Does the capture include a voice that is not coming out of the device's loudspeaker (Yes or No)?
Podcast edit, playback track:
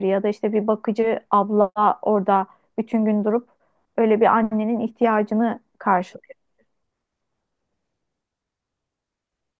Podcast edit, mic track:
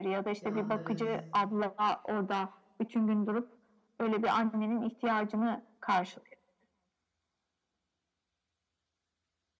Yes